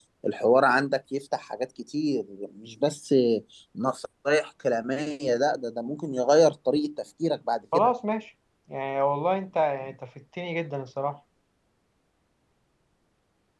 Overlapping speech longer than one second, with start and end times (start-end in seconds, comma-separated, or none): none